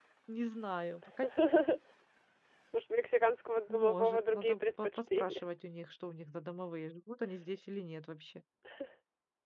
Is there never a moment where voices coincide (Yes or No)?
No